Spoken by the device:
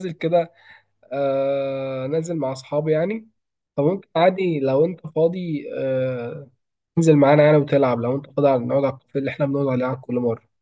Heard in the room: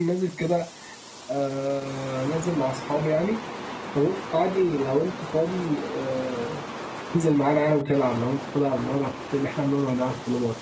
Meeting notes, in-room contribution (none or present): none